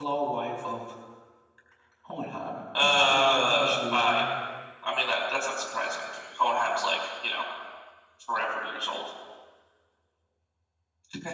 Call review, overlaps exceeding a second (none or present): present